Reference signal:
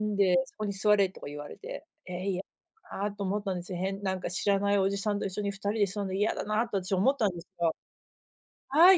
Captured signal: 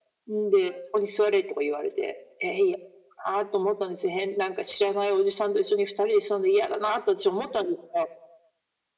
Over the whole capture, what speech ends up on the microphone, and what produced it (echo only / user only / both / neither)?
echo only